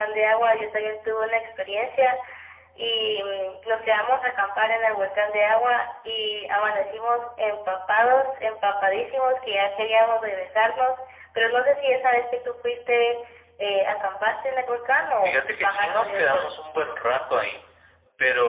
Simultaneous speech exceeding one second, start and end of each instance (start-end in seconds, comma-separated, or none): 15.2-16.5